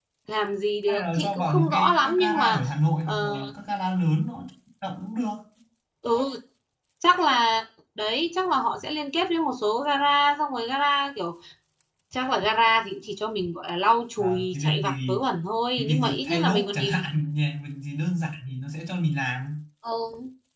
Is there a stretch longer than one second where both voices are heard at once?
Yes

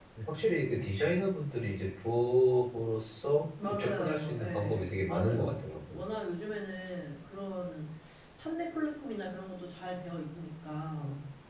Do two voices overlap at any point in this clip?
Yes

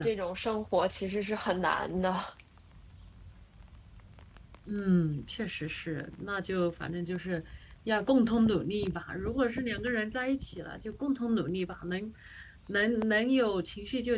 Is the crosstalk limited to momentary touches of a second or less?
Yes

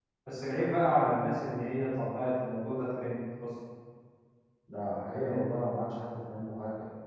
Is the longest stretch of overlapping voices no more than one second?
Yes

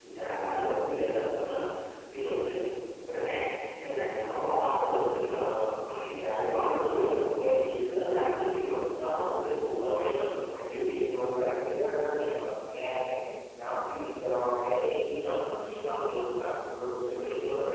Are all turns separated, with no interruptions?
No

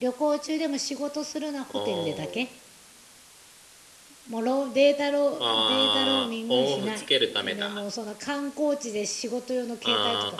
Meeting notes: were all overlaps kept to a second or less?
No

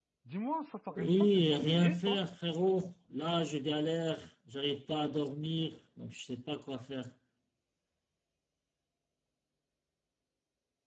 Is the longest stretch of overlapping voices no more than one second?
No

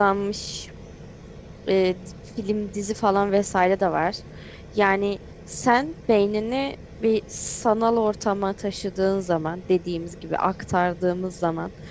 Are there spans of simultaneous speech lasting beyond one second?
No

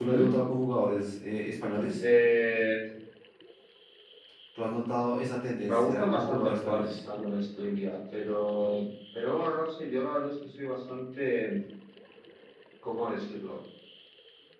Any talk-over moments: Yes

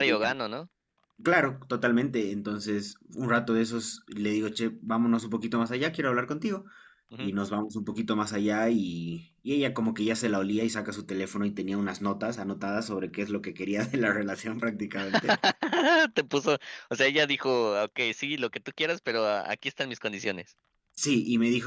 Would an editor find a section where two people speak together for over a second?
No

